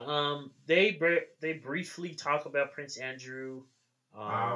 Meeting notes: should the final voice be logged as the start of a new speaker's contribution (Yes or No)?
No